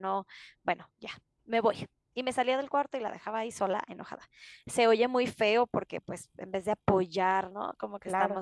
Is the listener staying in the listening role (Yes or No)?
Yes